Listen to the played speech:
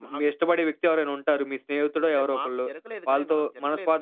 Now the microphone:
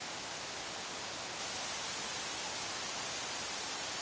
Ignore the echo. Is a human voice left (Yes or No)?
No